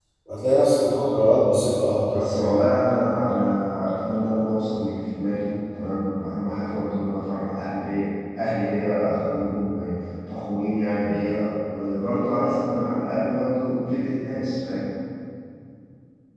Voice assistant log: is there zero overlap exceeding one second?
Yes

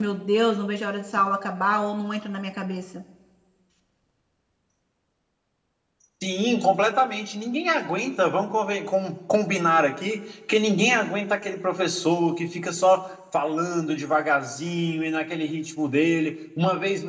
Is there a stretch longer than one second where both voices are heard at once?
No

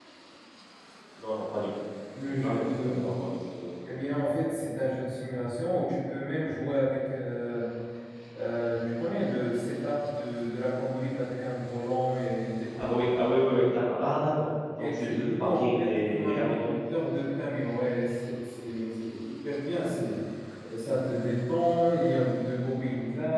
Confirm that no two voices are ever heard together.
No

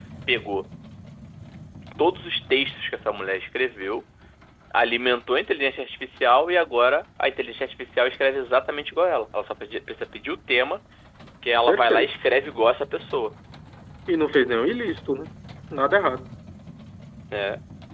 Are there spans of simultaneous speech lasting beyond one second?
No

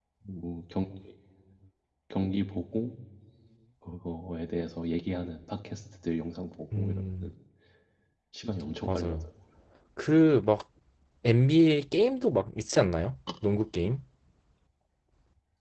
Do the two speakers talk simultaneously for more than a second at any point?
No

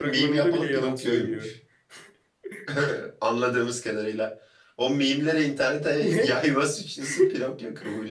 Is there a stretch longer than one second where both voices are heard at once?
Yes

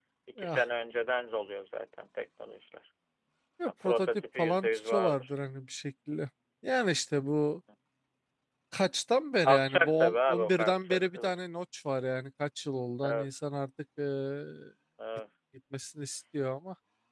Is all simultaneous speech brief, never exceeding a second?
No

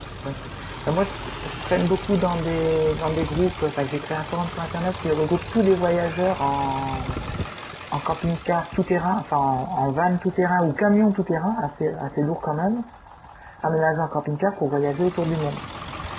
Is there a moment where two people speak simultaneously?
No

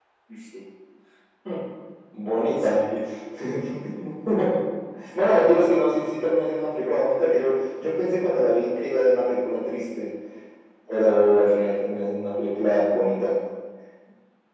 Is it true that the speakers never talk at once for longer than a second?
Yes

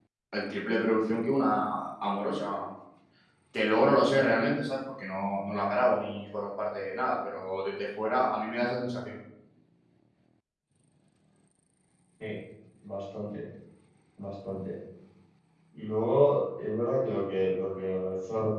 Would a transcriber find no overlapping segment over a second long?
Yes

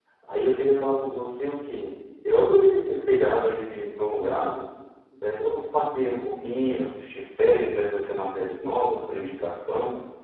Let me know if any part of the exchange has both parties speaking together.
No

